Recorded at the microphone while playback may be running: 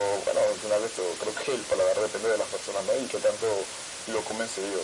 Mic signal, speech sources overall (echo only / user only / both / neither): echo only